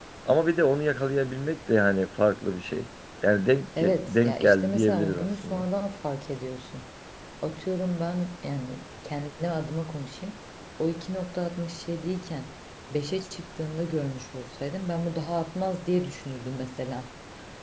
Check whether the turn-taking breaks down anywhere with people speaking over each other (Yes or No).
Yes